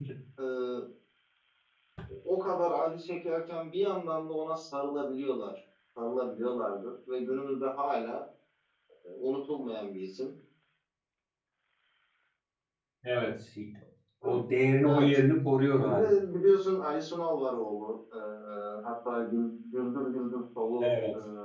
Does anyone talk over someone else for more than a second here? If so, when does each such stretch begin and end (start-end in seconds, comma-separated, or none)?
none